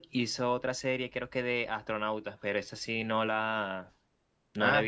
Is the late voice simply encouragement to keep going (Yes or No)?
Yes